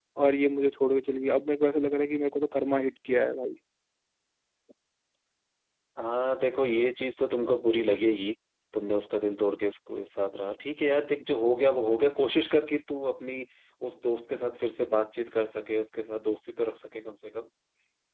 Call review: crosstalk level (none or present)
none